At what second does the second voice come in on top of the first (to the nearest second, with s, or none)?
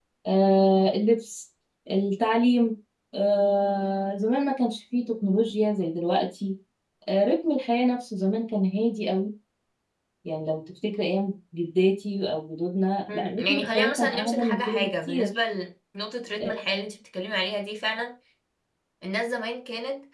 13 s